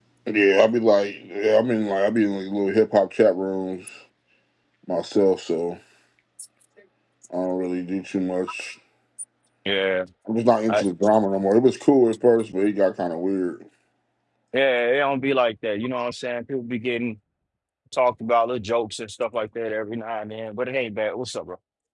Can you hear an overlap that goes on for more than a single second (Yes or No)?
No